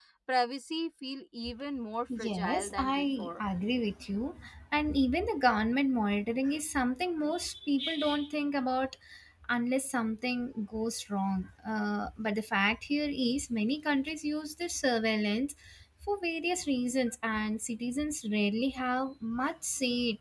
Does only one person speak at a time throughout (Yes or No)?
No